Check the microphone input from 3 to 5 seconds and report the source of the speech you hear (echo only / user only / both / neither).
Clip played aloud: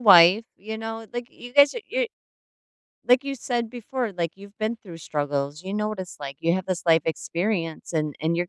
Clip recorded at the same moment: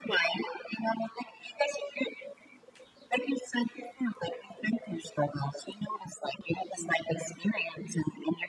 echo only